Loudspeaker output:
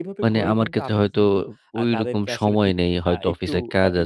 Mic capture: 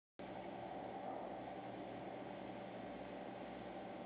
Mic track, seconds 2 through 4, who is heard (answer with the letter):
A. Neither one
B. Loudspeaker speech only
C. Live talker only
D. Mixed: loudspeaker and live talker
A